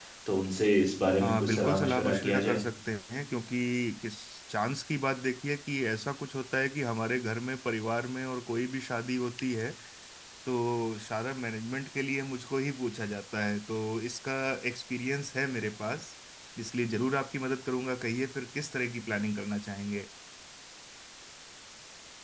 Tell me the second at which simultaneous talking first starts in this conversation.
1 s

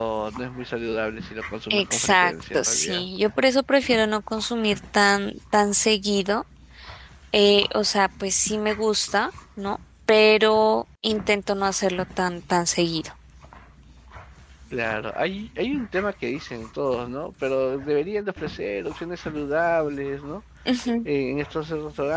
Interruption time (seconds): 2 s

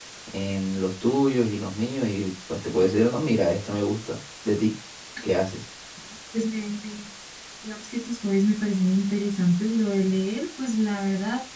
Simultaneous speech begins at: none

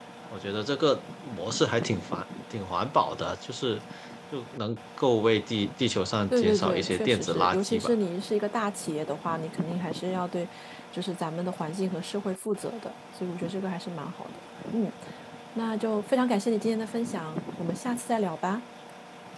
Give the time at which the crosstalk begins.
6 s

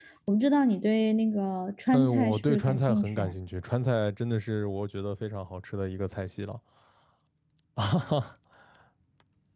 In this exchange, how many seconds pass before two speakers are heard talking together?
2 s

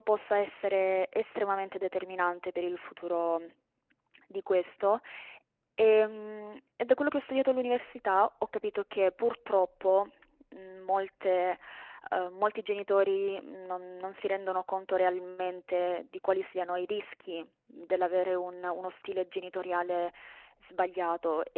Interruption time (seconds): none

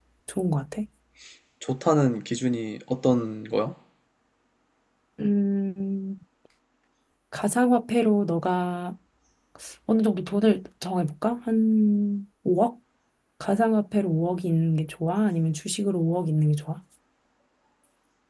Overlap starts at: none

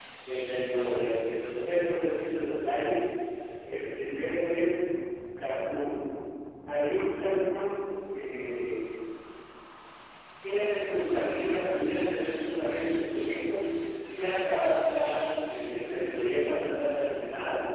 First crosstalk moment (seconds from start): none

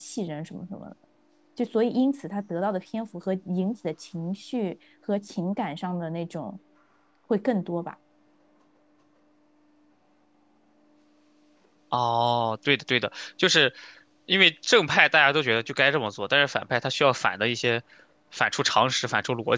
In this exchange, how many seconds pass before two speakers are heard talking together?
none

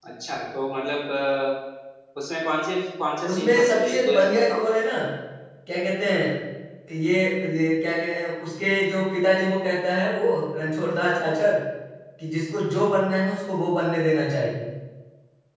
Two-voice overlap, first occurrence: 3 s

